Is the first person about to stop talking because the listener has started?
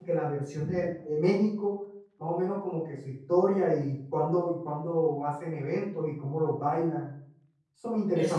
Yes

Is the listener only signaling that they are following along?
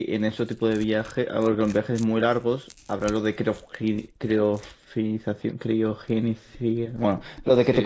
No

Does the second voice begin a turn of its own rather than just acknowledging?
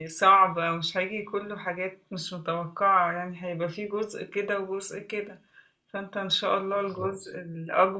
No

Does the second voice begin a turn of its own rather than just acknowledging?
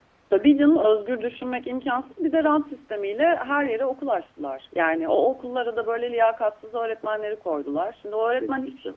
No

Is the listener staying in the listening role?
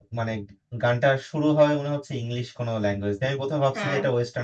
Yes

